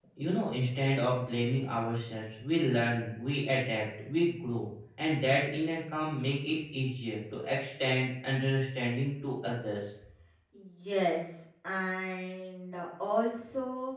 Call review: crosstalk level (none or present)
none